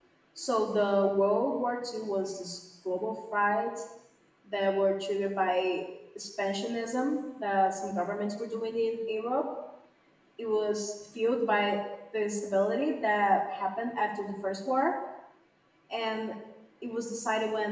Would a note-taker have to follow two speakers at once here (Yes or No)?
No